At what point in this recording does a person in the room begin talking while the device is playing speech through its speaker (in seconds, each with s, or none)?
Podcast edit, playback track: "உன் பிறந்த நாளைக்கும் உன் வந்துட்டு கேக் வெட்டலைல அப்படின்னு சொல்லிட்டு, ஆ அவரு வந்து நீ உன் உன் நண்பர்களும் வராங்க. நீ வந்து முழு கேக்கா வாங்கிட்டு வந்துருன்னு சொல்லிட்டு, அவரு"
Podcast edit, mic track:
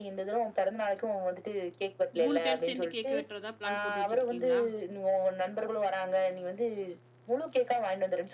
2.2 s